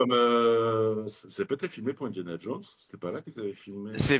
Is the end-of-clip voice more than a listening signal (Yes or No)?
Yes